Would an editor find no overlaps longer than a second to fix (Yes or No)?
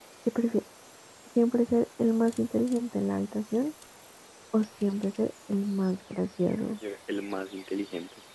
Yes